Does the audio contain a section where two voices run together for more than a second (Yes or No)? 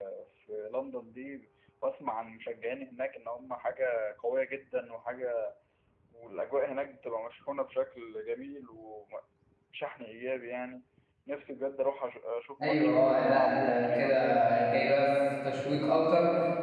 Yes